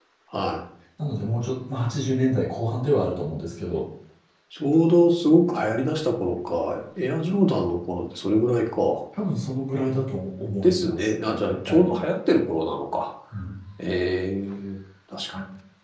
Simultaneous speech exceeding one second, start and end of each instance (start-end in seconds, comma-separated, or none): 10.6-11.9